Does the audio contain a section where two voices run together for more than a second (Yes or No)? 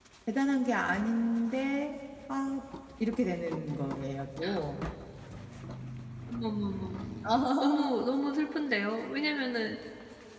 No